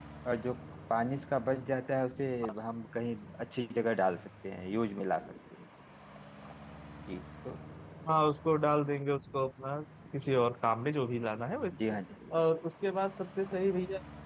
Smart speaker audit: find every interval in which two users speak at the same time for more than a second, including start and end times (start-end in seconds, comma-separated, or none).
none